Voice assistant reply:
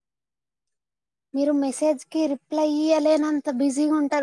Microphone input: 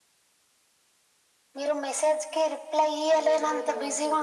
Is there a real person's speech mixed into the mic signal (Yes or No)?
Yes